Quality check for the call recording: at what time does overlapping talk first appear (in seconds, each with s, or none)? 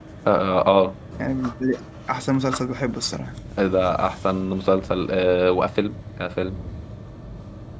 none